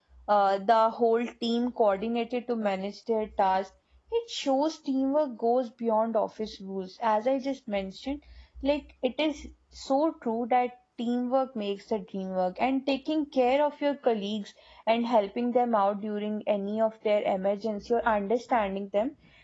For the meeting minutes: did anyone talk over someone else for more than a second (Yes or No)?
No